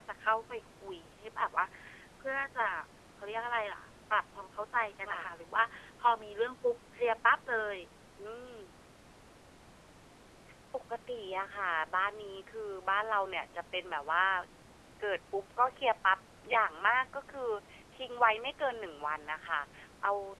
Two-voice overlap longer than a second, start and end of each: none

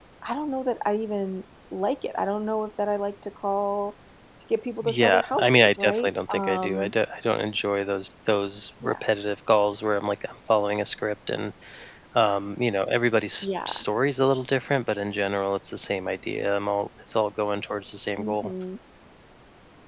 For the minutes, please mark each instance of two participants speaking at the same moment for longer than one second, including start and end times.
4.8-6.9

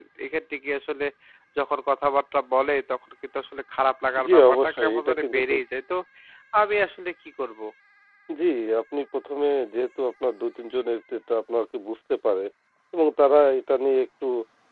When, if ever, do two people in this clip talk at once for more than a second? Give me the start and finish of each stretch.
4.2-5.6

